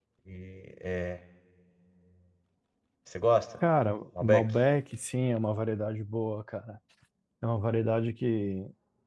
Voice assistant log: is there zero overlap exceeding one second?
Yes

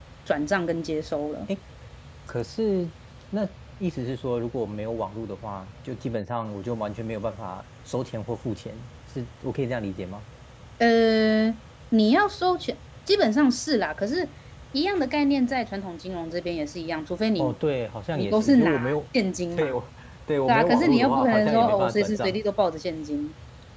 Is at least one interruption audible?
Yes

